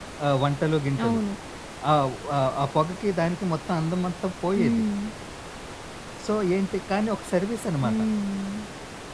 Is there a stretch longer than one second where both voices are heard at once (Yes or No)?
No